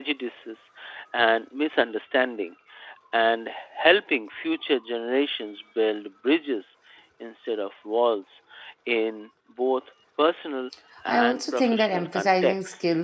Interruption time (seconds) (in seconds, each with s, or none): 11.1 s